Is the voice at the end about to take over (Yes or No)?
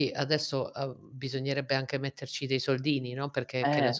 No